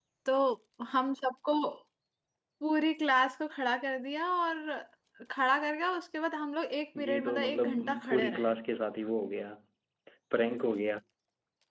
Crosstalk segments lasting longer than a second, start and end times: 7.0-8.5

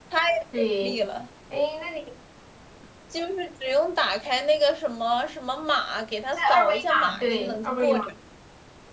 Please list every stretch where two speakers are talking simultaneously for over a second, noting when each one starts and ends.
6.5-8.0

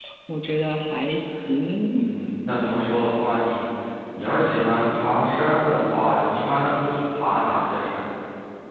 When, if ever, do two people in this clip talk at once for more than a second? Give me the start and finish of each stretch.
none

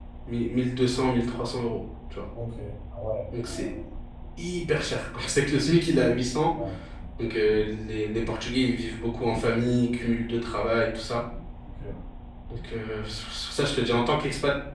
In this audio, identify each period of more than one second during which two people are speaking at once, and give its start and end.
none

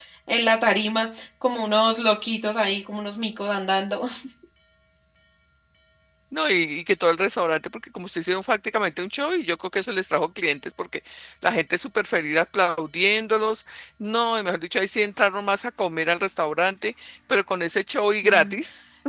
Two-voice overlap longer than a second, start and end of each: none

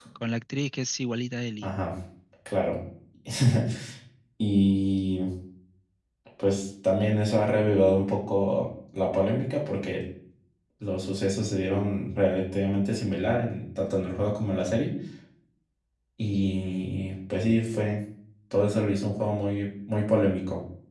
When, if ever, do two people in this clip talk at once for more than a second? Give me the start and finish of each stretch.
none

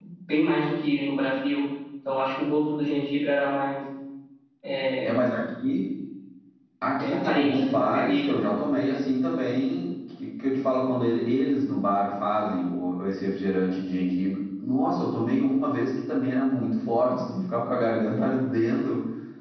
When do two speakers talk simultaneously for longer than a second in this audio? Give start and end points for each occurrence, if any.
7.0-8.4

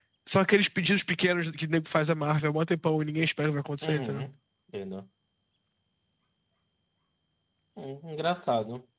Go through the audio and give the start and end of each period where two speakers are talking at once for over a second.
none

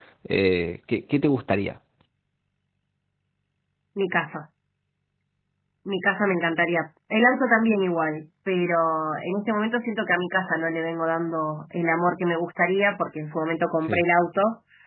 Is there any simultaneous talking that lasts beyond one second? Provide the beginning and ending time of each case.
none

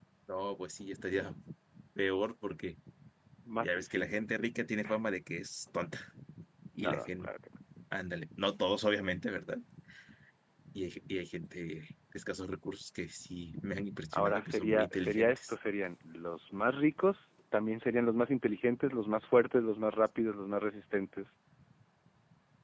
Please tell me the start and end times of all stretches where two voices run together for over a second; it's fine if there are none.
14.1-15.5

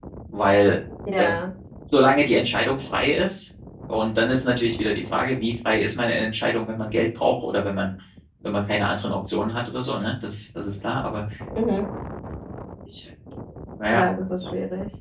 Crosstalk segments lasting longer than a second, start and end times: none

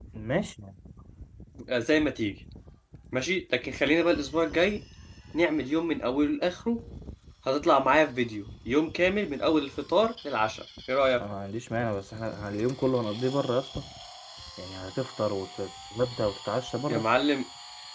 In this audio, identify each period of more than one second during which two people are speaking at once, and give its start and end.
none

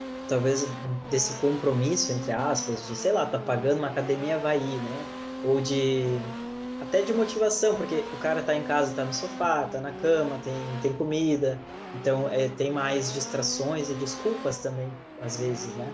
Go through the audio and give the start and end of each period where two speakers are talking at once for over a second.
none

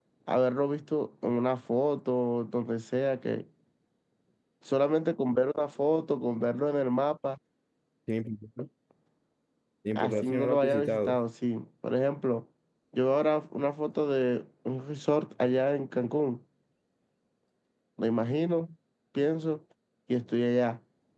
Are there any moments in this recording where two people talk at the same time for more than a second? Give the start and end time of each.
9.9-11.2

